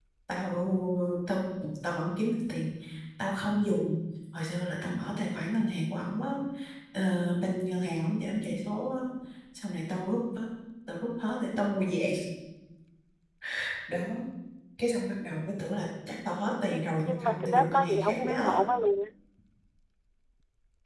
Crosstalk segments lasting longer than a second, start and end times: 16.7-18.6

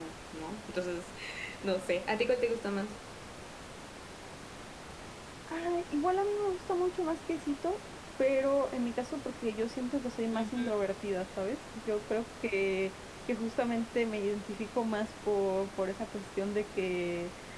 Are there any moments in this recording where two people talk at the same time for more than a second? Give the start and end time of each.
none

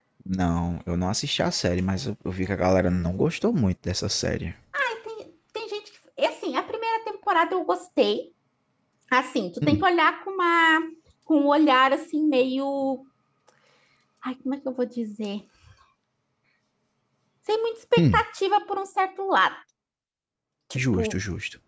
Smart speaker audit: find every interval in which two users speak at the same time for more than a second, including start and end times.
none

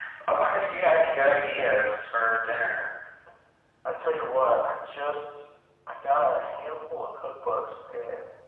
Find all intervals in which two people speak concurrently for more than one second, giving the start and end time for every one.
none

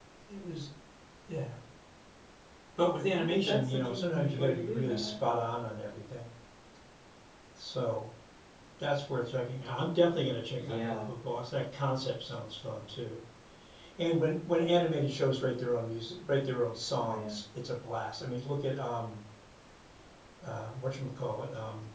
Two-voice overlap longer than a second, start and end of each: 3.2-5.1

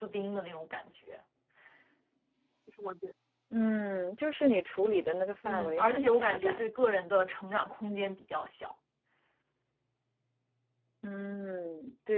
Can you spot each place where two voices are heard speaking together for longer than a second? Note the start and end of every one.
5.5-6.7

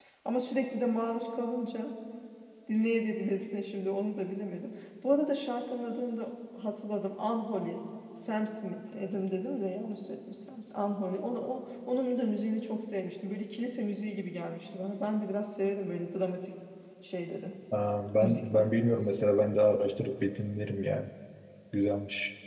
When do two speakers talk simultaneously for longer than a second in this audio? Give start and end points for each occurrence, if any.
none

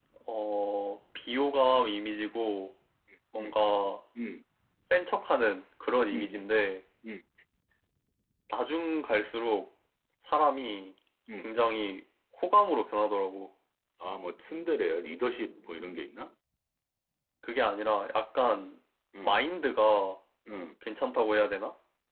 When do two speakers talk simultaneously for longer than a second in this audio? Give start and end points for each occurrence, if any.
none

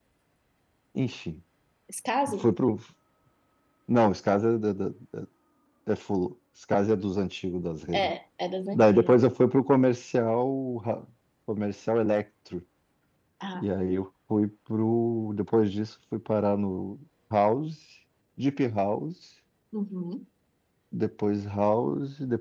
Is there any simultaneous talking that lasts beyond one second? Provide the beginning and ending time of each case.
none

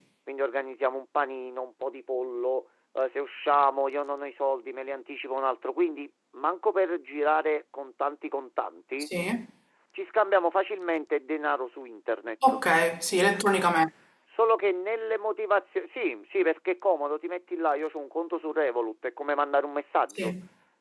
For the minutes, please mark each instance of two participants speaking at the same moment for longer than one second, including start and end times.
none

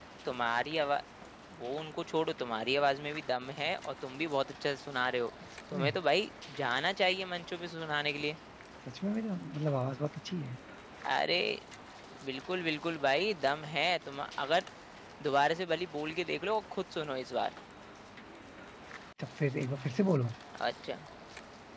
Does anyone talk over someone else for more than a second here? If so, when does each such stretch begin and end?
none

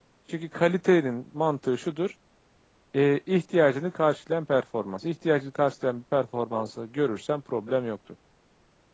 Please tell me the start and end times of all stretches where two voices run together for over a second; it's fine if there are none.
none

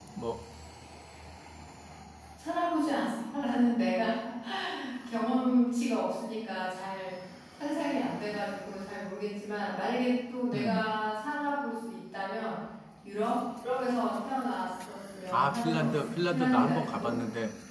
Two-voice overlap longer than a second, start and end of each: 15.3-17.1

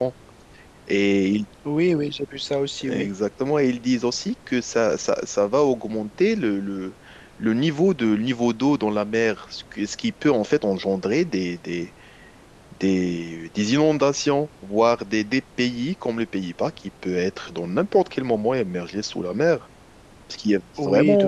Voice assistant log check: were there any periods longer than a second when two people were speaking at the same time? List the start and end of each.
none

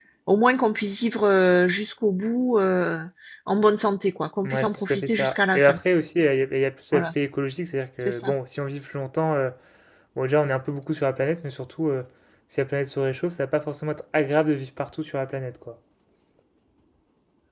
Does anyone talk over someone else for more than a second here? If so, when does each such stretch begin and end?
4.4-5.8

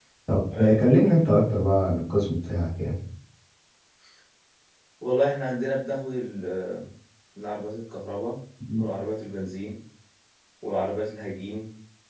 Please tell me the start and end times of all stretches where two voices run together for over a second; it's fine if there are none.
none

